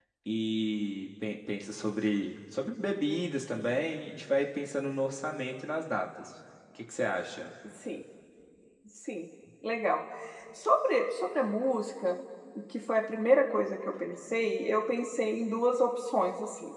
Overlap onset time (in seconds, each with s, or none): none